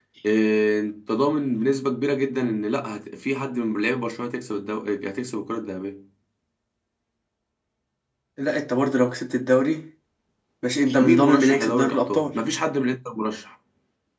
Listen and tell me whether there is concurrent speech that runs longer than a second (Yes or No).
Yes